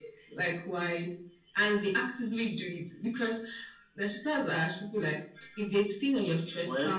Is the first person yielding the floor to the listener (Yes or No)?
No